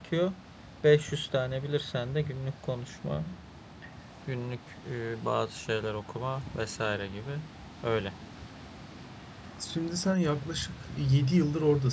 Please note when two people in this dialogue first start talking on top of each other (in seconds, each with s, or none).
none